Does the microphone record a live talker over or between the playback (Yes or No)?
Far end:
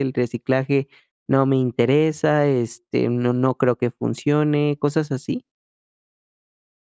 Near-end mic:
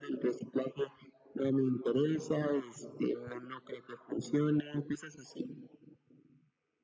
No